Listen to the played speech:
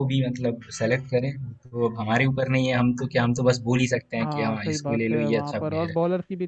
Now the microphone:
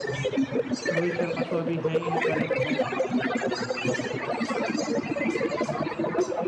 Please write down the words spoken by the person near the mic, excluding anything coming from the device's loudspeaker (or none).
रोहित शर्मा तो अभी है ही है करंट में